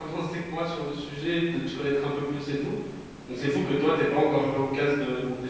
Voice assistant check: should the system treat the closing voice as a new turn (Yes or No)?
No